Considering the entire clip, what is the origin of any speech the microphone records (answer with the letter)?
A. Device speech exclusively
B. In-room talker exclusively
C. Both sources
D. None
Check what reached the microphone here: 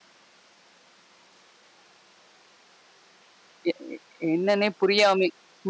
B